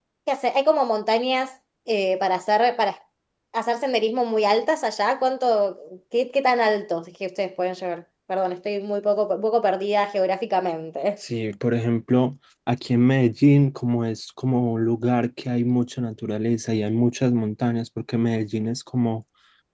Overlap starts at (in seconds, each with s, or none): none